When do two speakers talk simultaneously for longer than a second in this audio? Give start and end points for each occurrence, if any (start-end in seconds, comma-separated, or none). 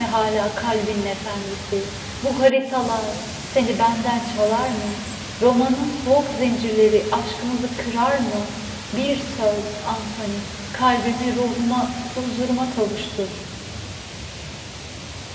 none